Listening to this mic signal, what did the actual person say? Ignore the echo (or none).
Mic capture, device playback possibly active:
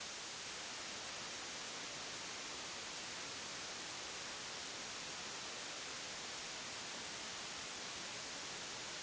none